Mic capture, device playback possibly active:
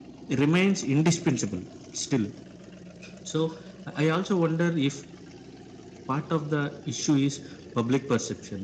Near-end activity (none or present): present